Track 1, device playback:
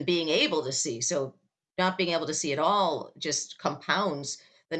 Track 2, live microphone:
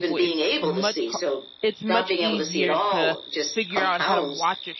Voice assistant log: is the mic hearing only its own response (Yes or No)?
No